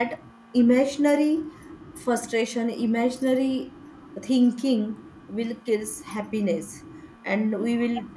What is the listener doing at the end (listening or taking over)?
listening